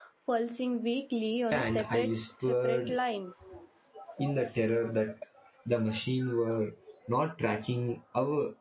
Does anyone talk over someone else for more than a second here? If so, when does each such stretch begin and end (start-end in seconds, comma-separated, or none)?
1.5-3.0